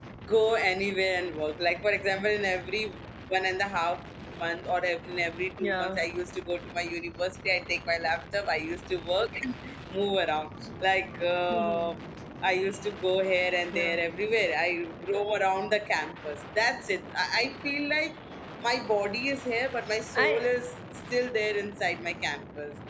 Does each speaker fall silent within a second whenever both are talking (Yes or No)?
Yes